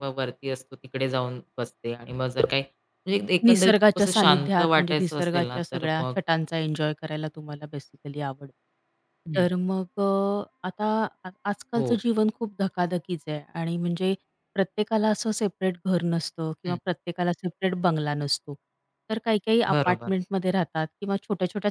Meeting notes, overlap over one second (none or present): present